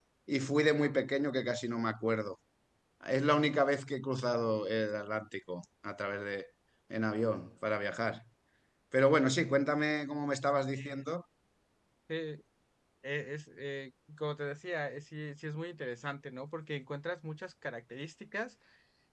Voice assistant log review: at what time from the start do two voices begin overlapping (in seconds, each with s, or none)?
none